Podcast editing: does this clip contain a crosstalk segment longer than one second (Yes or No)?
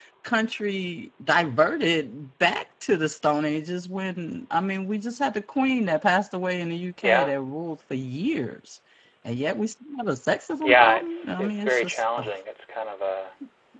Yes